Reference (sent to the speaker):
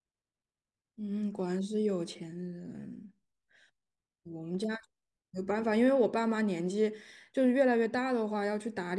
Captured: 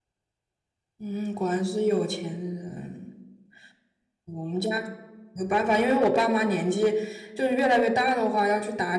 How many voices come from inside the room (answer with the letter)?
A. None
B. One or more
A